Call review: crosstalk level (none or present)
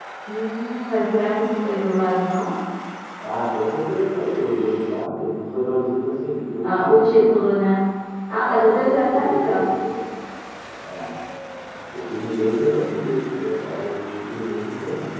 present